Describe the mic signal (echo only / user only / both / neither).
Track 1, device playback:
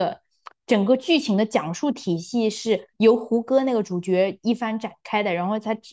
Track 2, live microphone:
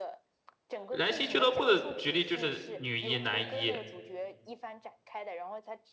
both